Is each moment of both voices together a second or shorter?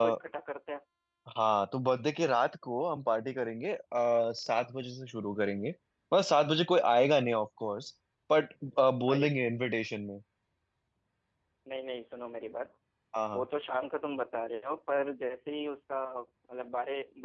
Yes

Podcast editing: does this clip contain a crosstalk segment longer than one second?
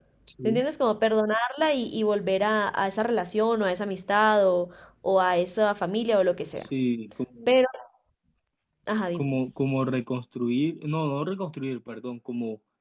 No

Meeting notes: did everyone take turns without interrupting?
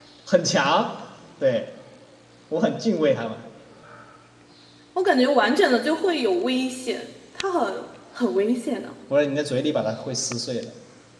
Yes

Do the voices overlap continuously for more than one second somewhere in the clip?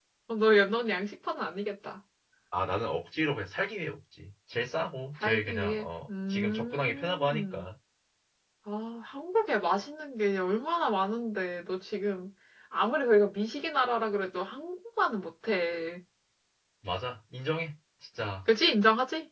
Yes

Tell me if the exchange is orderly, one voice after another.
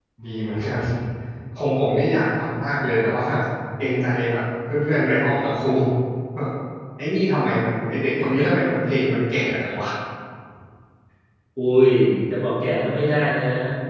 Yes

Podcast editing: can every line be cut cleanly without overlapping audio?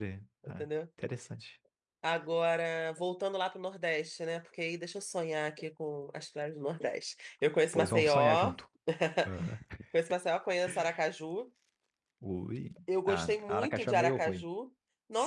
No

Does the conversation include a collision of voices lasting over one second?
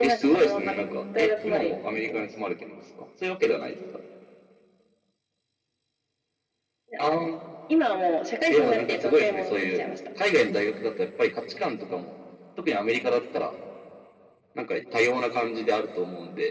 Yes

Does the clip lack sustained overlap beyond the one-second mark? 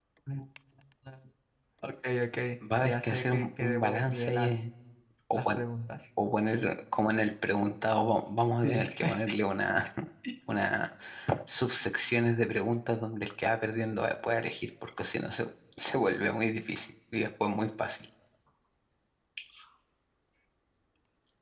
No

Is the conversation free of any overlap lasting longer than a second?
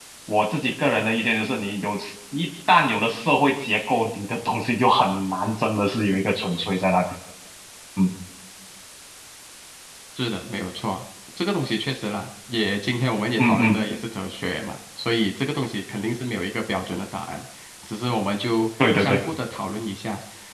Yes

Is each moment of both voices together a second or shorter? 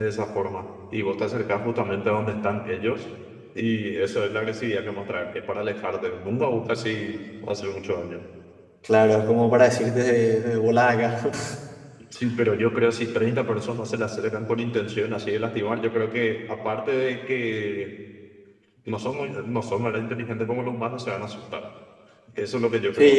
Yes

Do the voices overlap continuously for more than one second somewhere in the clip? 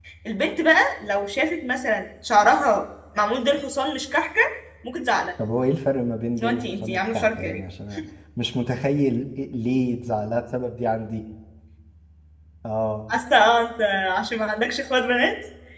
Yes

